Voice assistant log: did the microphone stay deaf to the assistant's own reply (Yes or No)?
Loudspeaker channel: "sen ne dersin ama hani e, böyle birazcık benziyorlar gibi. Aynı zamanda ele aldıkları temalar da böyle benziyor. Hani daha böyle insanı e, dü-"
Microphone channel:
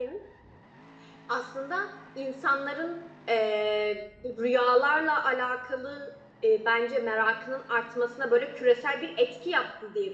Yes